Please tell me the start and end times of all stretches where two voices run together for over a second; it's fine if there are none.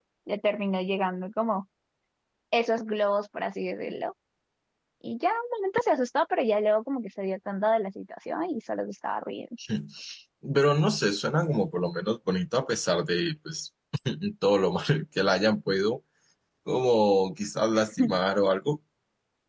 none

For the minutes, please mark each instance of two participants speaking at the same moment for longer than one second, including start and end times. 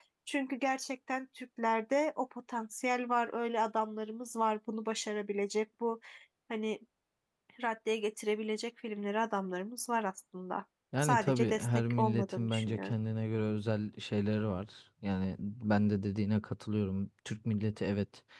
11.0-12.9

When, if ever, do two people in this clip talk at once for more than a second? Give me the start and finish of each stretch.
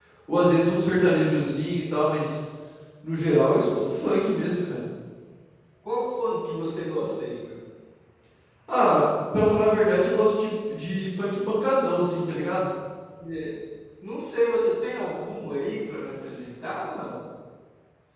none

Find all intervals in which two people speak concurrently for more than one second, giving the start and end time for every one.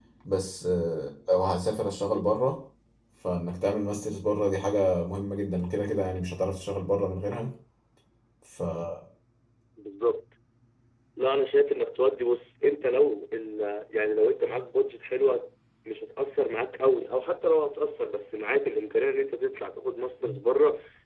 none

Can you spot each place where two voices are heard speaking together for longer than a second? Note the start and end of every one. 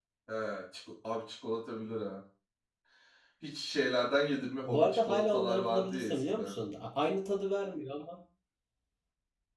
4.6-6.5

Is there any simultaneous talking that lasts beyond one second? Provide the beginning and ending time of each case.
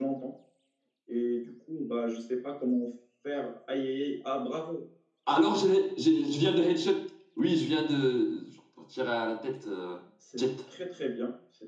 none

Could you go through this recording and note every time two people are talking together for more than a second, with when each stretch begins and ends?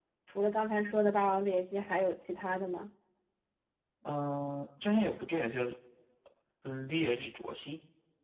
none

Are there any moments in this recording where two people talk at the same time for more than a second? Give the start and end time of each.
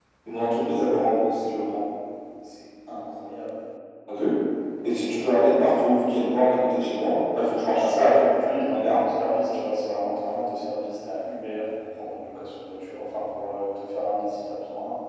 7.7-9.0

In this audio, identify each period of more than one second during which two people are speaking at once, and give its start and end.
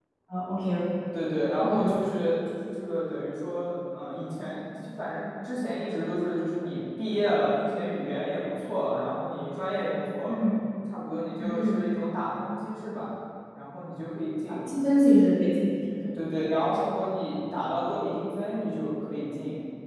none

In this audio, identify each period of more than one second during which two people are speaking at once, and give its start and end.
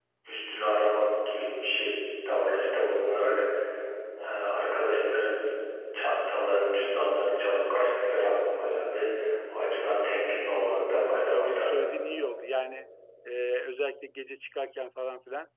10.6-11.8

